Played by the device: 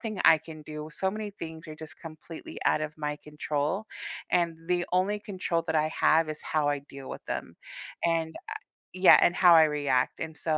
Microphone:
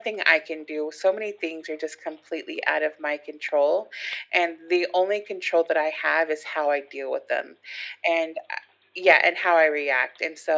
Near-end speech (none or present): none